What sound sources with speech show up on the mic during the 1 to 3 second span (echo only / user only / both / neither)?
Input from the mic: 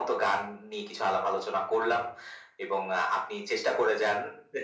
echo only